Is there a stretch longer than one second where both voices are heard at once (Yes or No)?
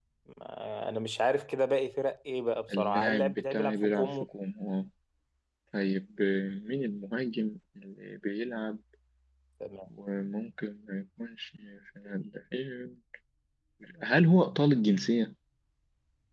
Yes